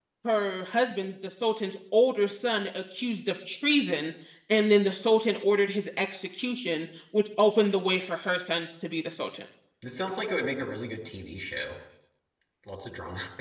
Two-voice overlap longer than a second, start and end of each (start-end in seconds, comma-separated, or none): none